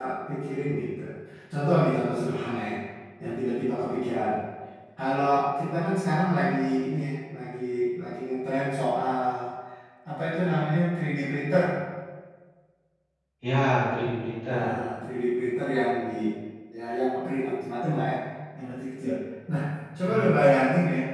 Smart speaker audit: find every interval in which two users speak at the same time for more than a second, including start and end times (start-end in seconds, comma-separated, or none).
none